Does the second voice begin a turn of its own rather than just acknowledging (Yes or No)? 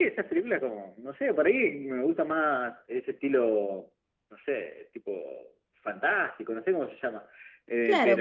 Yes